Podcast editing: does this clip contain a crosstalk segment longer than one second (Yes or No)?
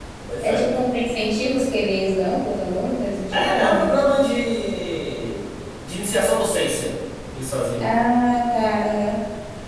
No